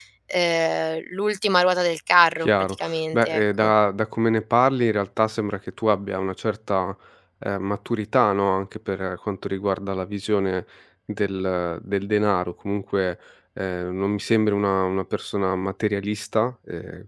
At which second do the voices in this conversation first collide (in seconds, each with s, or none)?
2.4 s